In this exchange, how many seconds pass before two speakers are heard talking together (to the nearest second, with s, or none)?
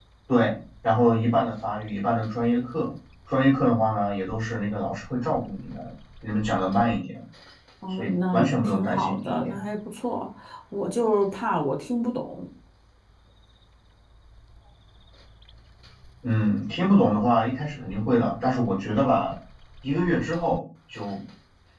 8 s